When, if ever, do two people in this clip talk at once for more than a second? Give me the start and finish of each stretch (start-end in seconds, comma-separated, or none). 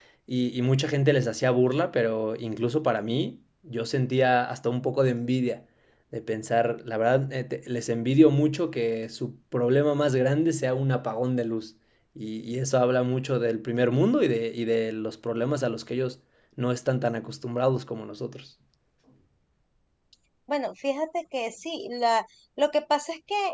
none